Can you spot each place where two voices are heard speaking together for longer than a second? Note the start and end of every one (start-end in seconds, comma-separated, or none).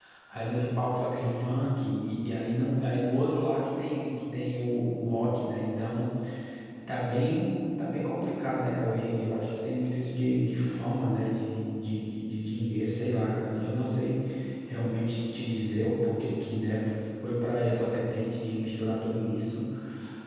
none